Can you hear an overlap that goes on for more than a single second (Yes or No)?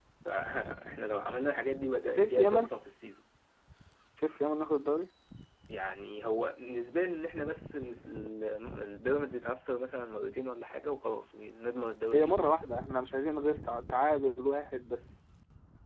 No